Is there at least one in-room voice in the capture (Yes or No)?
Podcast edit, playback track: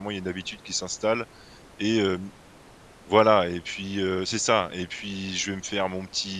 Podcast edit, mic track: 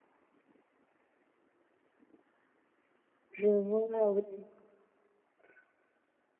Yes